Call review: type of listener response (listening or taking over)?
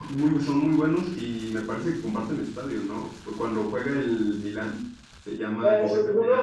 taking over